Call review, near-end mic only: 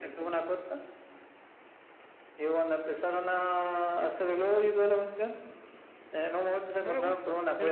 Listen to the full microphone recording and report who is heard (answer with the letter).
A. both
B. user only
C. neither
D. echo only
A